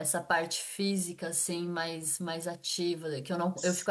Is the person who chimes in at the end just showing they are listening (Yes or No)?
Yes